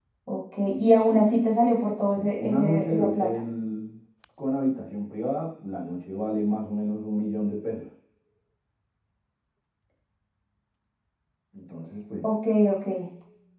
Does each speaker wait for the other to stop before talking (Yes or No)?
No